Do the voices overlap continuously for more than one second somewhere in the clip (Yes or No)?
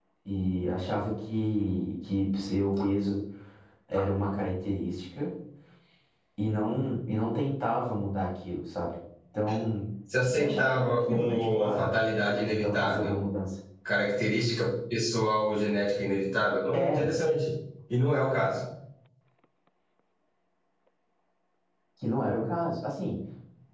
Yes